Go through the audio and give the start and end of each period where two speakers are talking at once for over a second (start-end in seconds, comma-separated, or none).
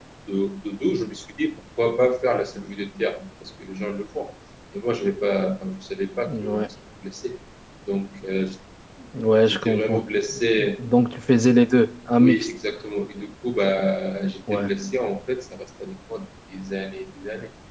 none